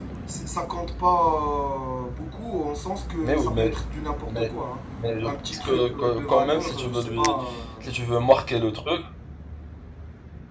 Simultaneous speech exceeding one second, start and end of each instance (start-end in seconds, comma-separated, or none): 5.2-7.4